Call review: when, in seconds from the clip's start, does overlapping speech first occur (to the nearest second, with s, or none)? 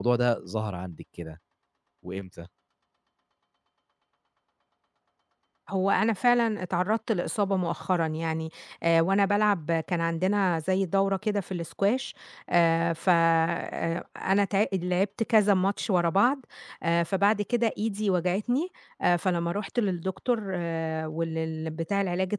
none